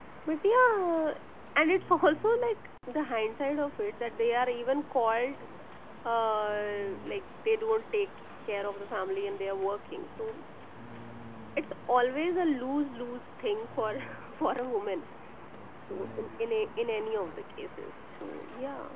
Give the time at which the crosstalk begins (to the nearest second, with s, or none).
none